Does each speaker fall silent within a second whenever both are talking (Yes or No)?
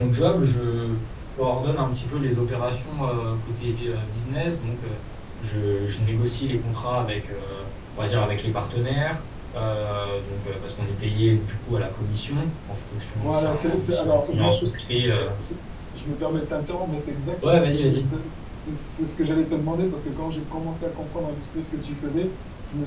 No